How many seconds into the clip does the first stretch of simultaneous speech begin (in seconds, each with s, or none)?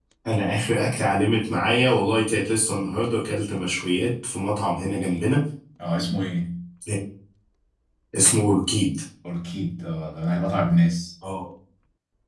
none